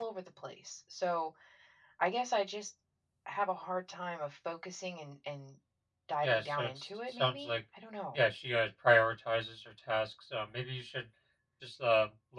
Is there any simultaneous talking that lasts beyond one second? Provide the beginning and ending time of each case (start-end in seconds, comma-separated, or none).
6.2-7.6